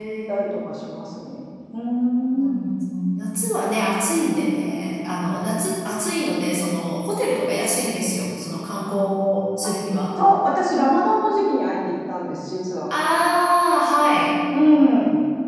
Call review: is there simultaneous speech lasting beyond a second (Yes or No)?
No